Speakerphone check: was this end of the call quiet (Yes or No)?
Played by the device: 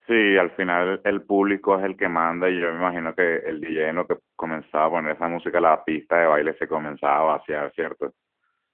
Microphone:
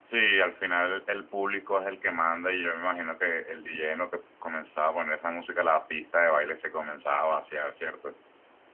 Yes